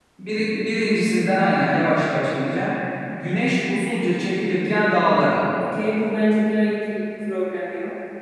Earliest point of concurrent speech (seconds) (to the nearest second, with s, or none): none